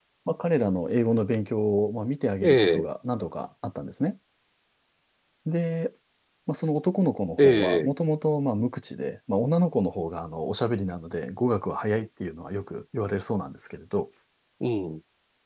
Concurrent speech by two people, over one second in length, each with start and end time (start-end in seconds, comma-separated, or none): none